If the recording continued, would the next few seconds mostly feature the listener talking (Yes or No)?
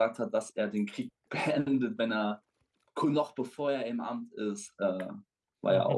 Yes